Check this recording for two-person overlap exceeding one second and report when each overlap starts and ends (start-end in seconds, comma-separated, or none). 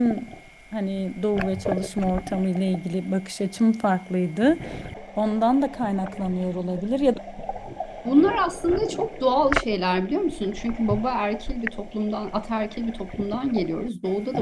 none